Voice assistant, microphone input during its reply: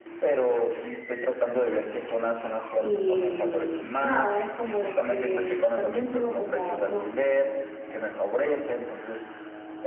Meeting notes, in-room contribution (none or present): present